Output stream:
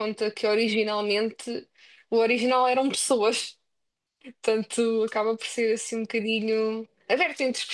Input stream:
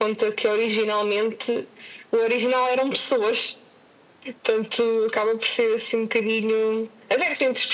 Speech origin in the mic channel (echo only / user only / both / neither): echo only